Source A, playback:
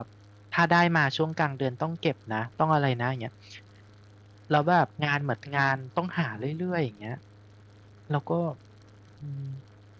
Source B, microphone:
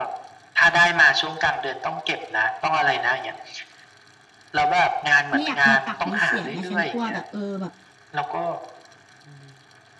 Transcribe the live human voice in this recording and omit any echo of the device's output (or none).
ไม่อยากมีปากมีเสียงไงฉันกลัวแบบเออแบบ